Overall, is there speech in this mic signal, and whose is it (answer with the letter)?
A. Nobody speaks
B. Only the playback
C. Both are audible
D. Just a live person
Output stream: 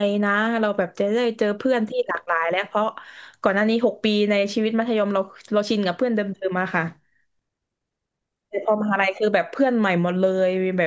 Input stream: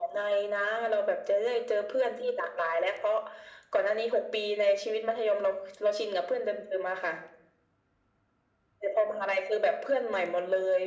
B